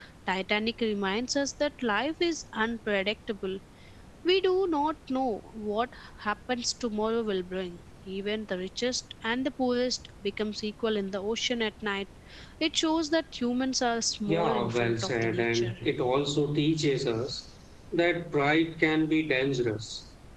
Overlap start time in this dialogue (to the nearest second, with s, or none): 14 s